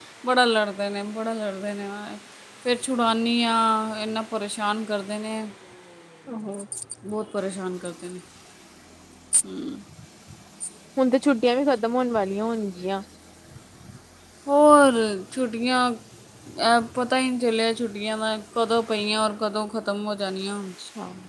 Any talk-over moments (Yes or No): No